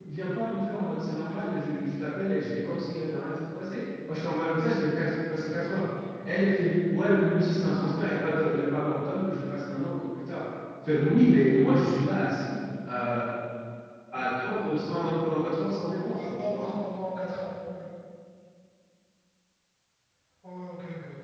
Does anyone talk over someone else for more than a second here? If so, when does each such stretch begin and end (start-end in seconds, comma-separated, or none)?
none